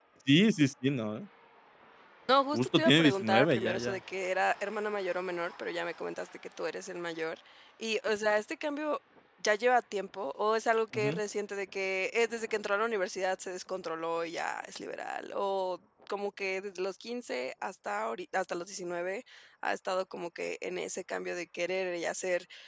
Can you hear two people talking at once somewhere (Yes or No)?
Yes